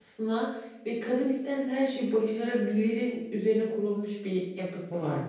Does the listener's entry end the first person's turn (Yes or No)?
Yes